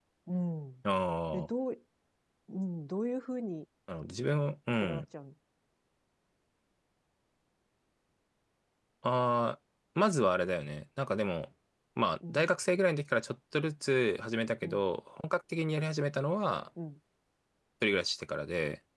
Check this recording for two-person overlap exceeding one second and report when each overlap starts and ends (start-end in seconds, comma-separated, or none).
none